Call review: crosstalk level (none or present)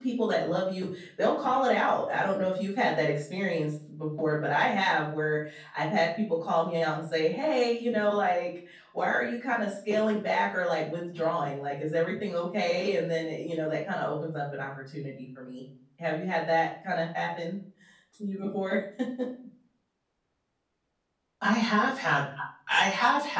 none